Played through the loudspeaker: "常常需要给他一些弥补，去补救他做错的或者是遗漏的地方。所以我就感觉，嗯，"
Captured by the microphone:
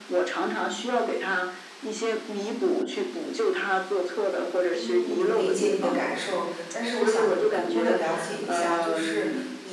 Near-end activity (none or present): present